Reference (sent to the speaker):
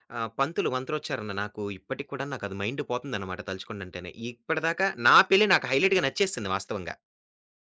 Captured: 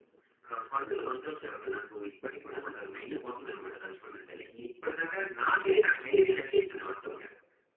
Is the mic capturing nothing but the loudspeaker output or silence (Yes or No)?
Yes